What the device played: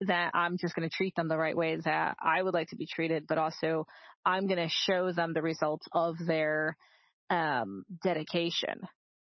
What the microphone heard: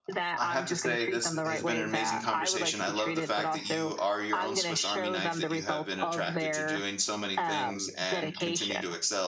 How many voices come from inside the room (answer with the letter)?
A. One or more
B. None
A